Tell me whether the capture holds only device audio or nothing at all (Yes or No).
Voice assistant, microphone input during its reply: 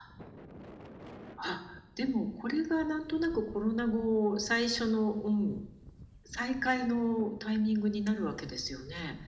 Yes